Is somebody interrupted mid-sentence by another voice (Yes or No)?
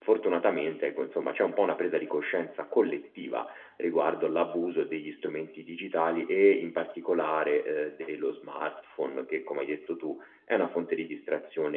No